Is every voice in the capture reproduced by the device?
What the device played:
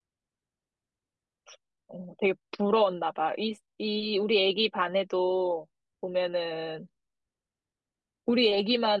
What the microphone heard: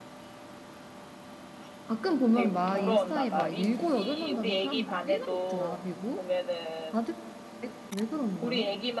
No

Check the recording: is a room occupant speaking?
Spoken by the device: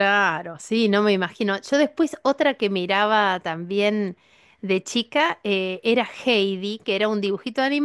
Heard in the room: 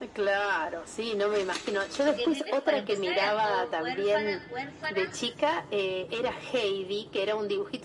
Yes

